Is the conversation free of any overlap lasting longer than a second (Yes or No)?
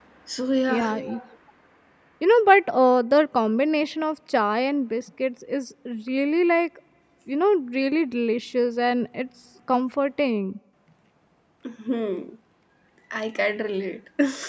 Yes